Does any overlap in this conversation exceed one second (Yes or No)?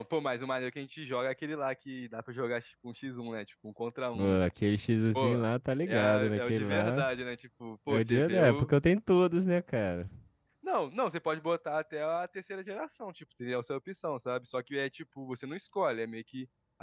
Yes